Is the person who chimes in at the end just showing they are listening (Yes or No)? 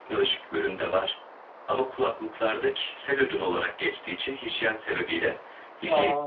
Yes